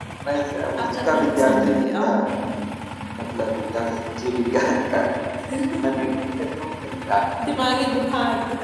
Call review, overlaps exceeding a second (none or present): present